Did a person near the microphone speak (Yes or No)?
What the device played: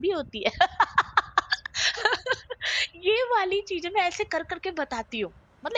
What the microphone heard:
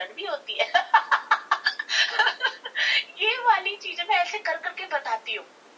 No